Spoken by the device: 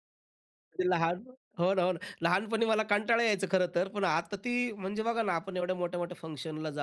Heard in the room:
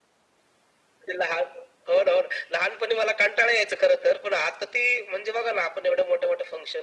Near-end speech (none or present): none